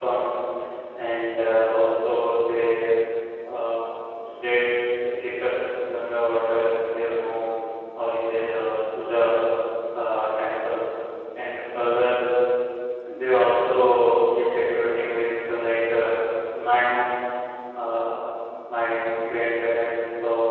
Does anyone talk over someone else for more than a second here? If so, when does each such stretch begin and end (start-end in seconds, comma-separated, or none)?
none